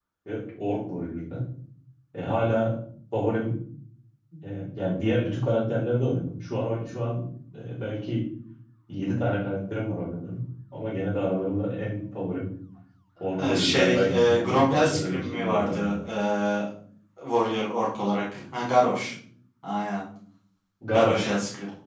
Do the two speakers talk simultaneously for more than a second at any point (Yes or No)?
Yes